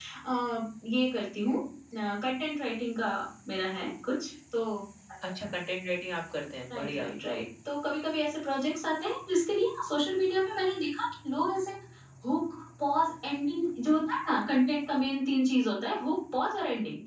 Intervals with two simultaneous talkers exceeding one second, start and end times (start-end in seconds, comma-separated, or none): none